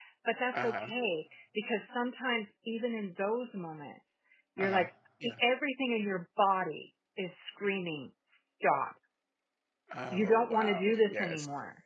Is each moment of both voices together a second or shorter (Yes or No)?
No